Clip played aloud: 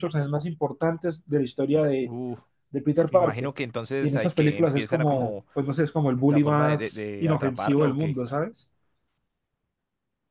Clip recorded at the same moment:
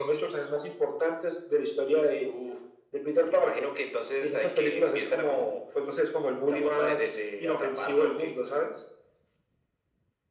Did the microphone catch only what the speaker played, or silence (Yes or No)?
Yes